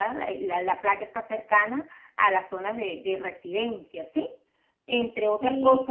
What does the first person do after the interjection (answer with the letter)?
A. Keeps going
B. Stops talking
B